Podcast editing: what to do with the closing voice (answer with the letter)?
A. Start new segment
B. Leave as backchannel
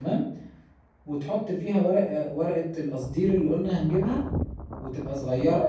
B